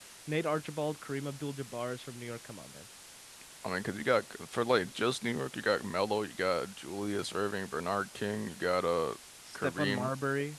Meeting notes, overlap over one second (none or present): none